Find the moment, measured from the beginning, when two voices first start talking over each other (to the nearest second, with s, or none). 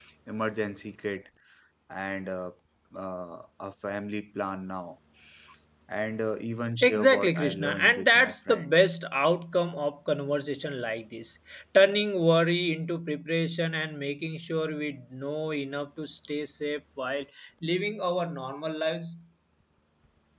7 s